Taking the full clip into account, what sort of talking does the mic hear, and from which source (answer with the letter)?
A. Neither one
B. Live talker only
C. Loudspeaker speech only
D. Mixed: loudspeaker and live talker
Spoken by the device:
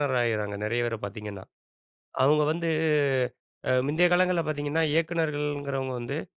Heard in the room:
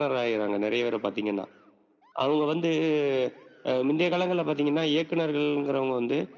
C